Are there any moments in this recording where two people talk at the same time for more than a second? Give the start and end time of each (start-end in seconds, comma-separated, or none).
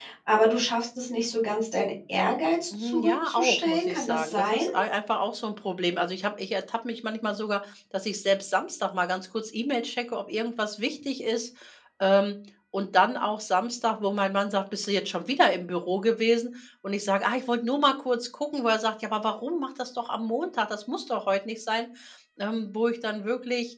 2.8-4.6